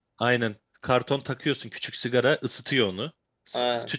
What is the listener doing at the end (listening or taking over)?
taking over